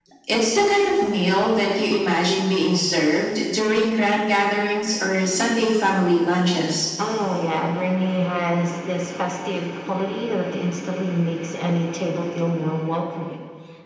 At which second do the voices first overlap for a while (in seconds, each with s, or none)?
none